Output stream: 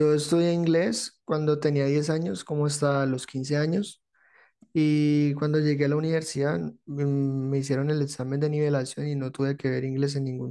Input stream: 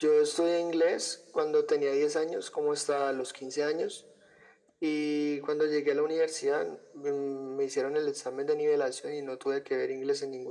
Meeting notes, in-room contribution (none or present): none